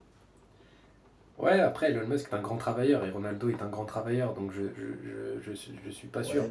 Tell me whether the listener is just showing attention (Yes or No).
No